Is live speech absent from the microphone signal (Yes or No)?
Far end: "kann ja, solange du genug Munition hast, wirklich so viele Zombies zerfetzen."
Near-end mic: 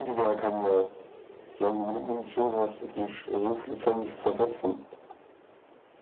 Yes